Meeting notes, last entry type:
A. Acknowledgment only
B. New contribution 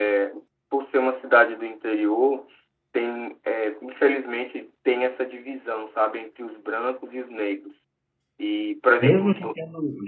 B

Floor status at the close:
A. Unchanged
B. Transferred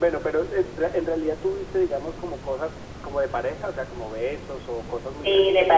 B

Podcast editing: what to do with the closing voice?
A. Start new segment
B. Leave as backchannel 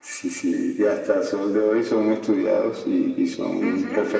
B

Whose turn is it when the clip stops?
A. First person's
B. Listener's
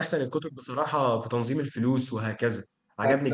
B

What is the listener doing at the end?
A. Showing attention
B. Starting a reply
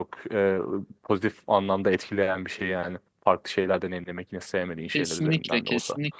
B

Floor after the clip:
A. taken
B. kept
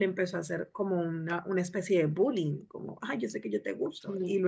A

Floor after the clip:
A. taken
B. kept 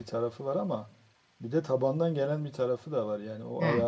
B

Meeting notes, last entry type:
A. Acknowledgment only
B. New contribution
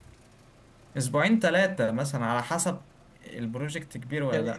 B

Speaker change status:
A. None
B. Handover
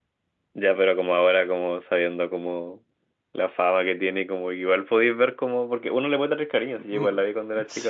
B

